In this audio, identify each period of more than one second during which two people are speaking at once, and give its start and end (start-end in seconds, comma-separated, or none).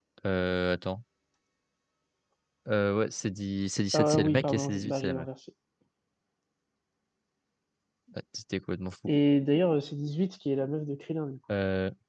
3.9-5.3